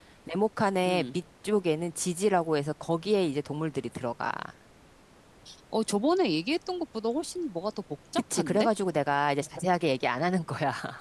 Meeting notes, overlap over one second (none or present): none